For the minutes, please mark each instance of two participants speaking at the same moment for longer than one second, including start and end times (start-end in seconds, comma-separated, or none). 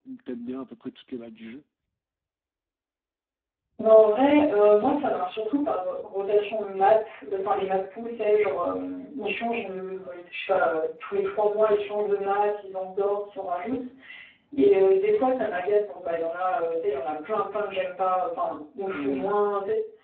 none